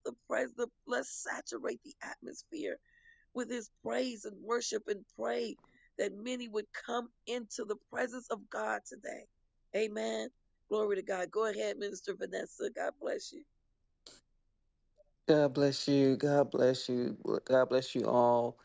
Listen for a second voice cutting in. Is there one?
No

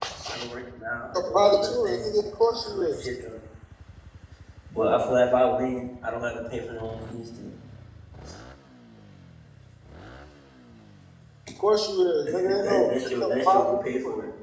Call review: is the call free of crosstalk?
No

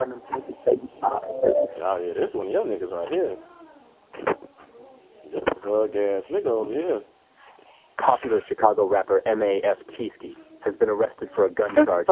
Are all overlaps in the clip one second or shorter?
Yes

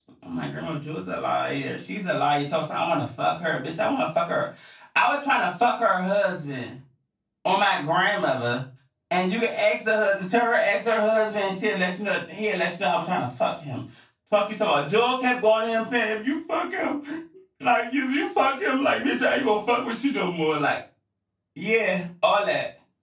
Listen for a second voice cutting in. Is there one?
No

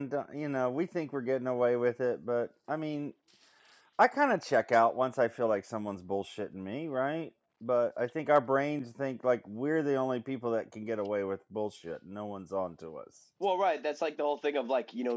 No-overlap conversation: Yes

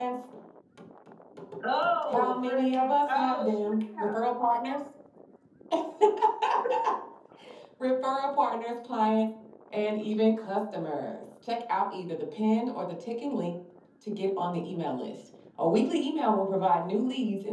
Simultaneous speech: Yes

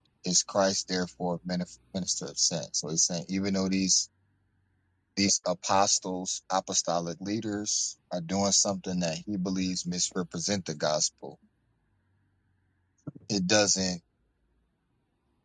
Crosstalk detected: No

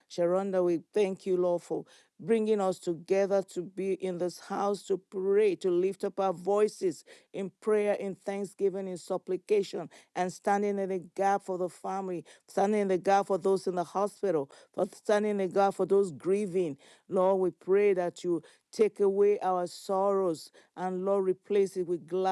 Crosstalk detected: No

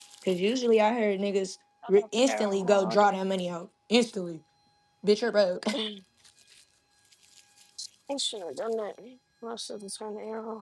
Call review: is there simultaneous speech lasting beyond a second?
Yes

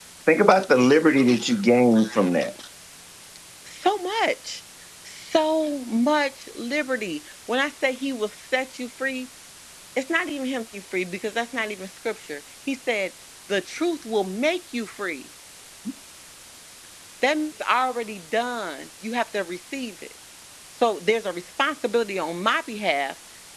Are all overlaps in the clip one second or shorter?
Yes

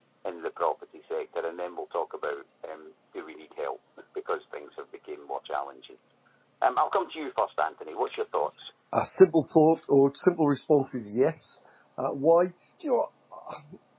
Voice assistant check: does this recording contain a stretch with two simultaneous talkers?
No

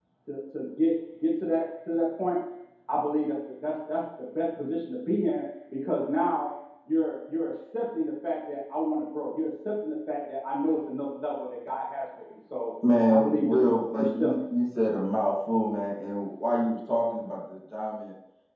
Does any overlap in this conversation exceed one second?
Yes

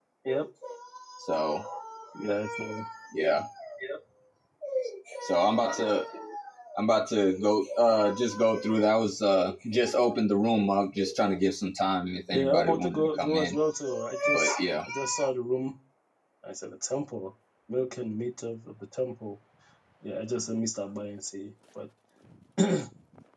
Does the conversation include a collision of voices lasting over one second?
Yes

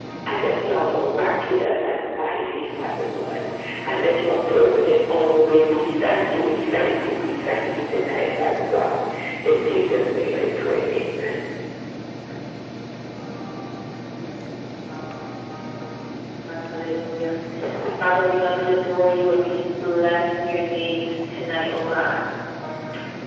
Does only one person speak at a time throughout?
Yes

